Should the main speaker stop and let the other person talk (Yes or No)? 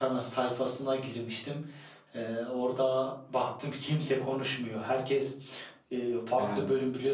No